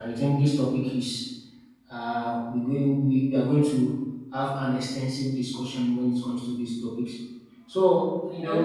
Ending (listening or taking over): listening